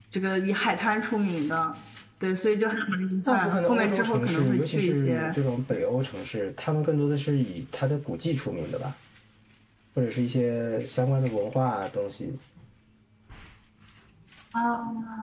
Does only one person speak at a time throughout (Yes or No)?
No